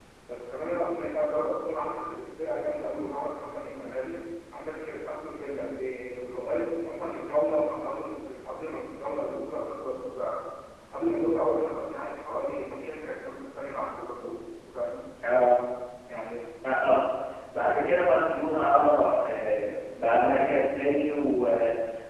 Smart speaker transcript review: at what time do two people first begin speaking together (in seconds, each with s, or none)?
none